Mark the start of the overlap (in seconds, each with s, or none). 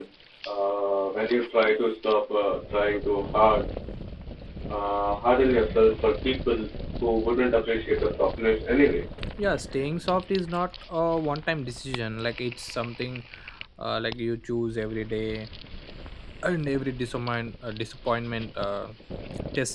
none